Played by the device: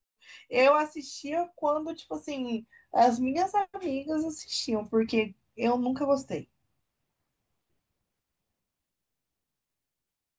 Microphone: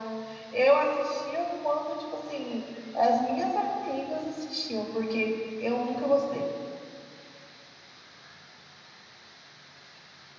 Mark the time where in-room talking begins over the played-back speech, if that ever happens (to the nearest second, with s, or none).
none